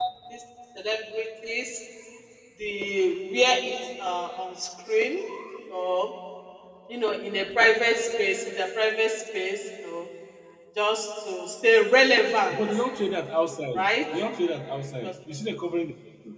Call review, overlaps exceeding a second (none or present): none